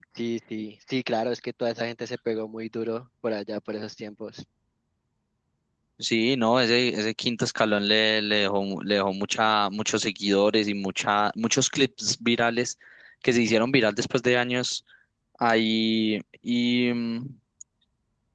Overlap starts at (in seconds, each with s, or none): none